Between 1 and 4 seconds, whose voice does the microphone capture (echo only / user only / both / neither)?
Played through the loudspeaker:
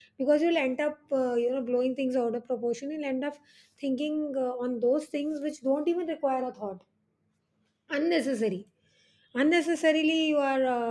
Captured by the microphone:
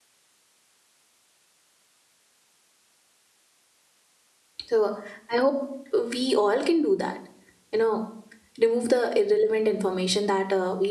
neither